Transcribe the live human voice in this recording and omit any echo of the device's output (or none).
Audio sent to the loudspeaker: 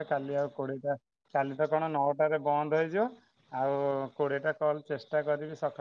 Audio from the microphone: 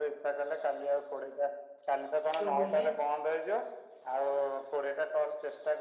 କଣ କହିଲେ?